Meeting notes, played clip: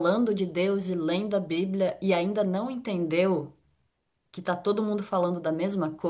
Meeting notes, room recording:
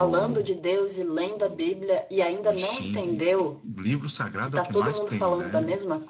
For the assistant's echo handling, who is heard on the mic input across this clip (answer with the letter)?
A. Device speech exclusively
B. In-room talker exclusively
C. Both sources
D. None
C